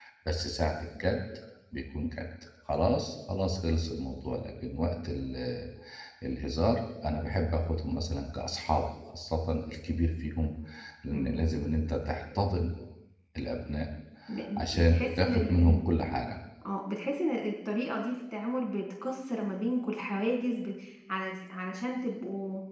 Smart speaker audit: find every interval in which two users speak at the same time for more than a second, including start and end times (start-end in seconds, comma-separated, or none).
14.6-15.8